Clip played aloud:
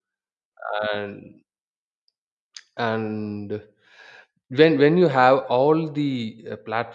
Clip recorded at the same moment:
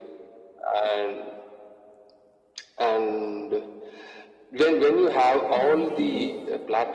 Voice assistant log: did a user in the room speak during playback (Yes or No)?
Yes